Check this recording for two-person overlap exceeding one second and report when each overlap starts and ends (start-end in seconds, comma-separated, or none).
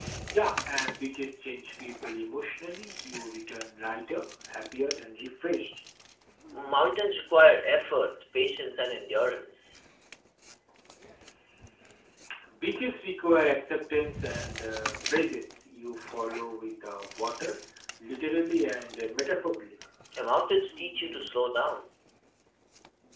none